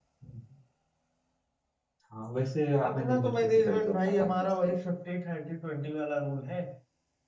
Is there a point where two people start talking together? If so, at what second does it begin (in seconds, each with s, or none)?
2.9 s